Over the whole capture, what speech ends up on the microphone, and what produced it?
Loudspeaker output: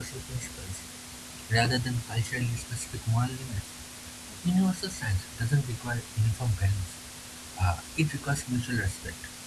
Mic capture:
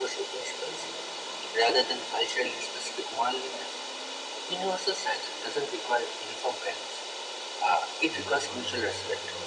both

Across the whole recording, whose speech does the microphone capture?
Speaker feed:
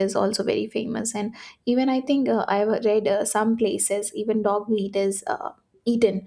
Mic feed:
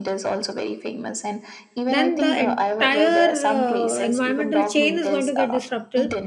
both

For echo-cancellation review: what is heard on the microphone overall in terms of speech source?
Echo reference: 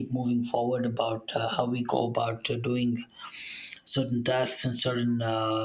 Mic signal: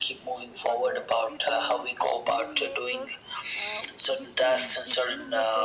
both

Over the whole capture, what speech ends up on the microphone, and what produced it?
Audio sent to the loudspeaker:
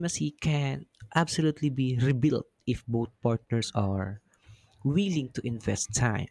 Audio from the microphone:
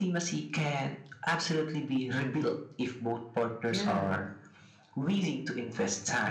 both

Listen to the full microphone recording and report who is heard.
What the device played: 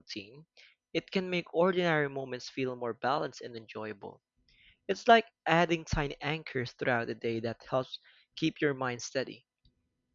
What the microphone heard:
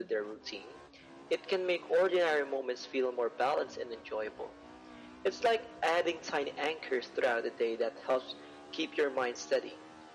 echo only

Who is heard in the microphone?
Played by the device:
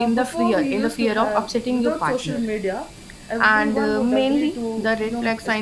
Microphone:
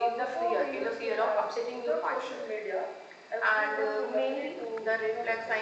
echo only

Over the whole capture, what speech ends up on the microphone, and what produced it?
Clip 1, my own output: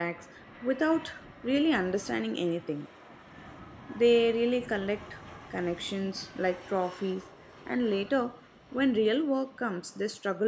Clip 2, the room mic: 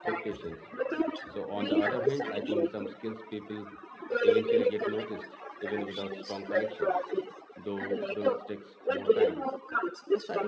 both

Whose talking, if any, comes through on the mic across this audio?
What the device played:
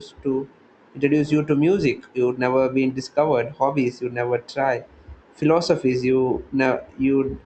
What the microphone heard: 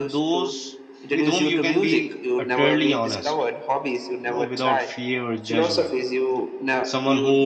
both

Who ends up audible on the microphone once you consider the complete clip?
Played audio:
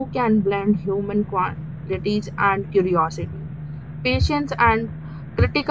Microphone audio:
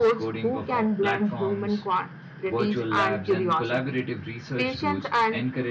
both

